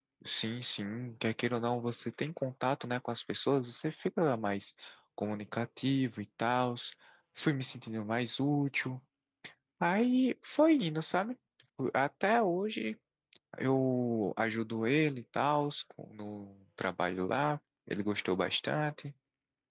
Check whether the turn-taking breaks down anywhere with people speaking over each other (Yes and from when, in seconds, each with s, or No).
No